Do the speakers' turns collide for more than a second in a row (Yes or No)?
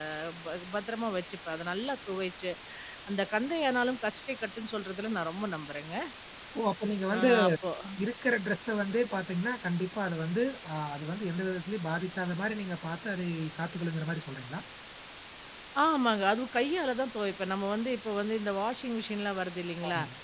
No